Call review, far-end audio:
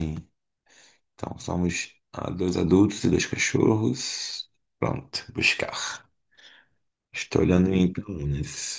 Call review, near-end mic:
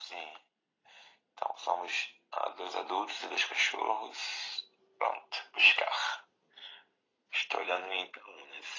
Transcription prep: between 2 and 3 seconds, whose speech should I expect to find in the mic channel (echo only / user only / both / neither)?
echo only